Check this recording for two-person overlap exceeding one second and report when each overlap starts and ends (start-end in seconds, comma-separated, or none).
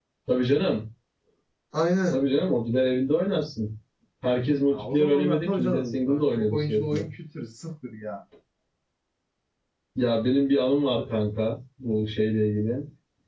4.7-7.0